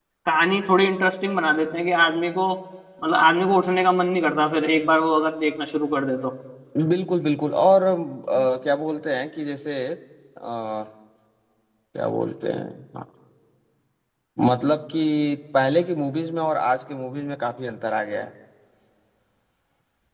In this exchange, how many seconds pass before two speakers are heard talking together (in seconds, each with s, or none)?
none